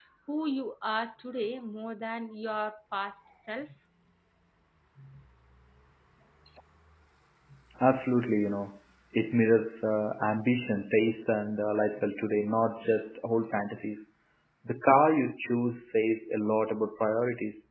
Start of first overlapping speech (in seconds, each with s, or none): none